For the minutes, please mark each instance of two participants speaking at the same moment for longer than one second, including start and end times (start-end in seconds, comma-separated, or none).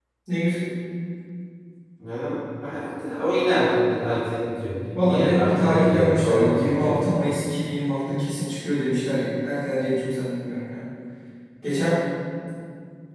5.0-6.9